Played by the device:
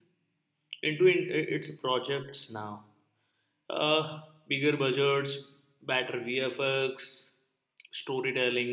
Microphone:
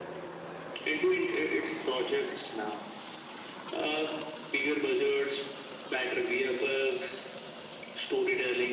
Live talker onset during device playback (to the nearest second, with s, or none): none